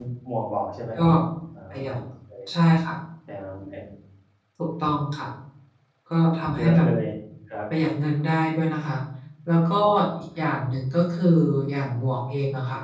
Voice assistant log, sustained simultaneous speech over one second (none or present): none